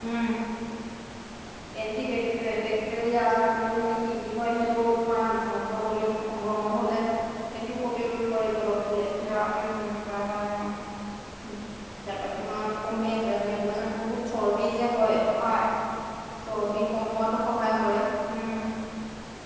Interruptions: none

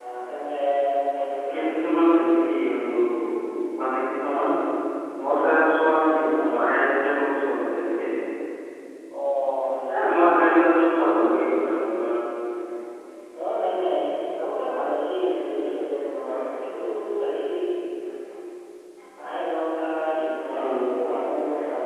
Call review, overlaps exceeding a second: none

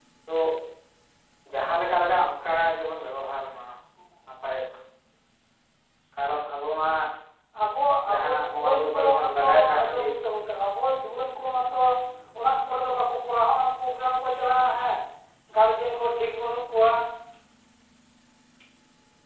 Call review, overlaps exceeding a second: present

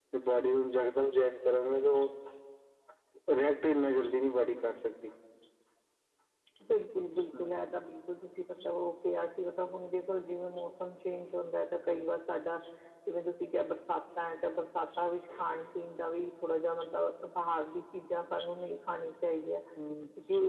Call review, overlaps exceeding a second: none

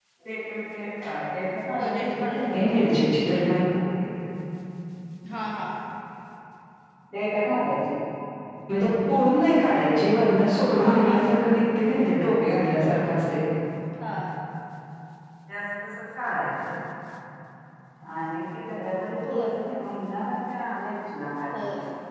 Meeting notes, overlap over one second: present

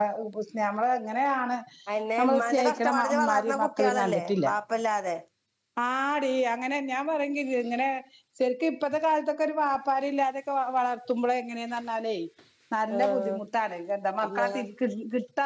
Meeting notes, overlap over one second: present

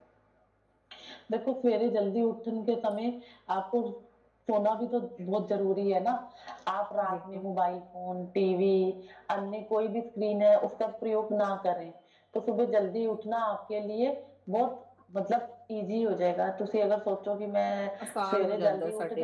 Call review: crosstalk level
present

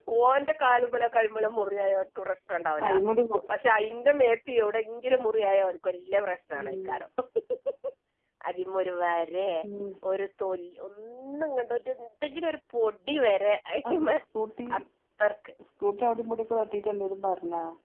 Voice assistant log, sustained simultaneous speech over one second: none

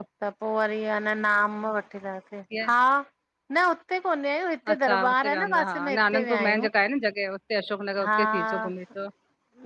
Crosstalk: present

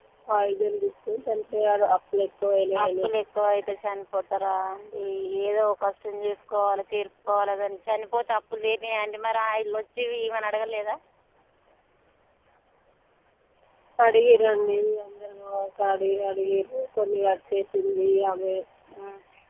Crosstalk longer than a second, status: none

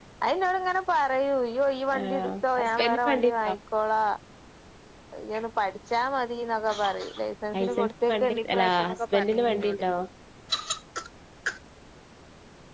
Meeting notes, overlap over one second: present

